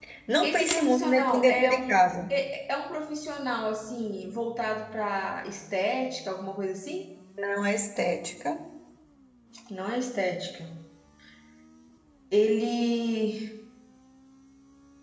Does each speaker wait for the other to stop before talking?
No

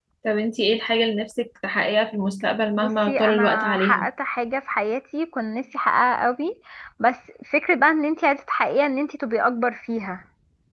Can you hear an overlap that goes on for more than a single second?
Yes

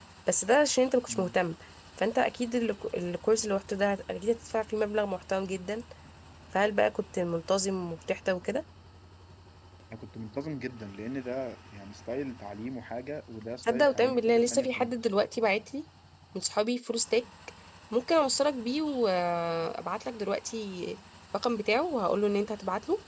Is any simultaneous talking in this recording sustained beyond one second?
Yes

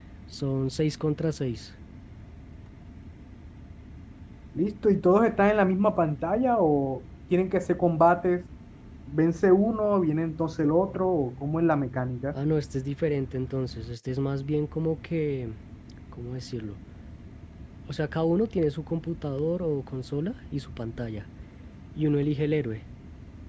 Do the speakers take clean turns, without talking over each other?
Yes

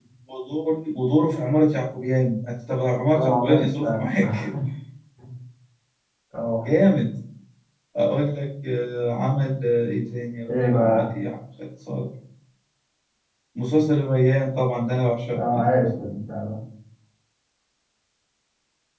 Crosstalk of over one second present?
Yes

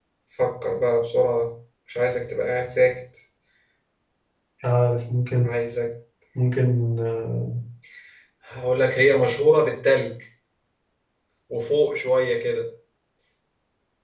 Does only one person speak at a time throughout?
Yes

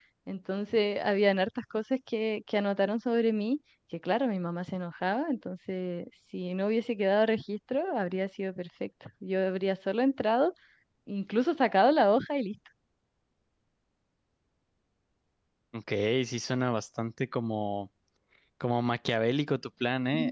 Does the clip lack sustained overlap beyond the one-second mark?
Yes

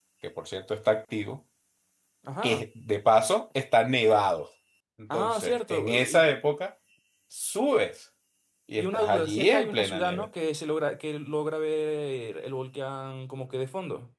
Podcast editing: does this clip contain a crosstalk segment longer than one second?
Yes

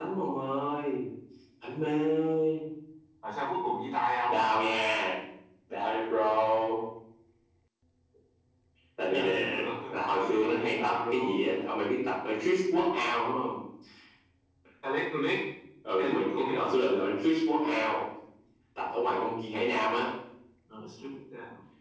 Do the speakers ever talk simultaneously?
Yes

